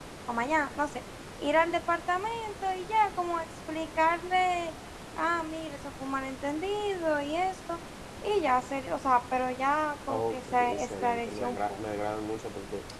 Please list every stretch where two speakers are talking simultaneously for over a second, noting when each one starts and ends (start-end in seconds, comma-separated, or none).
10.1-11.8